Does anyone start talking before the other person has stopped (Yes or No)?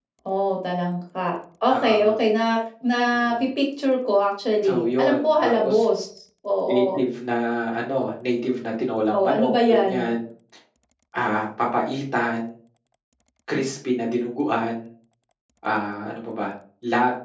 Yes